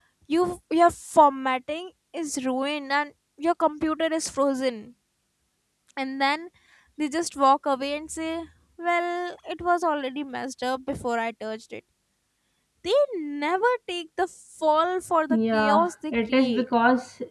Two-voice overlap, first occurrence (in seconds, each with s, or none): 15.3 s